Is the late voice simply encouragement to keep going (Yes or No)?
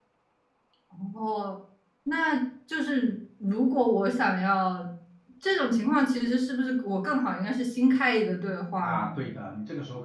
No